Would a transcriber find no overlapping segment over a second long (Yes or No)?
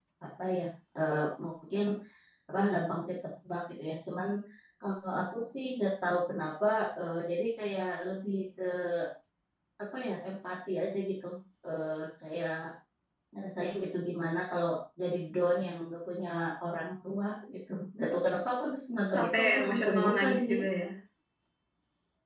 No